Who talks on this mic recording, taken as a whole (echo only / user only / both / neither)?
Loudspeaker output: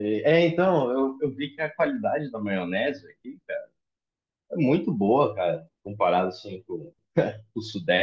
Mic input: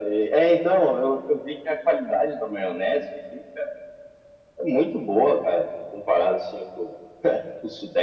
echo only